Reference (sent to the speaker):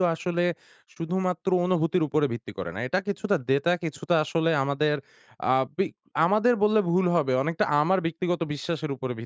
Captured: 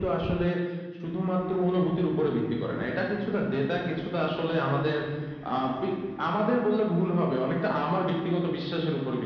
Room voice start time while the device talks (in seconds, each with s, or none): none